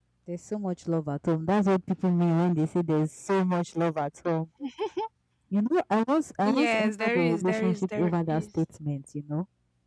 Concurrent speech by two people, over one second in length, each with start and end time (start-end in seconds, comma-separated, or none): 6.4-8.5